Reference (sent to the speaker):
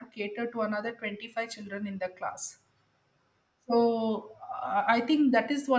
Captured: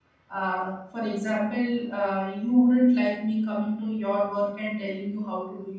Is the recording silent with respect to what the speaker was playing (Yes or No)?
Yes